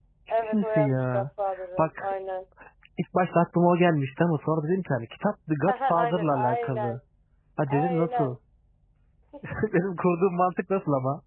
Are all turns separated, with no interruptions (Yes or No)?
No